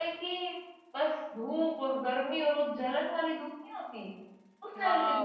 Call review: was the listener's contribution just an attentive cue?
No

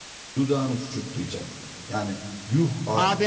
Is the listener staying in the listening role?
No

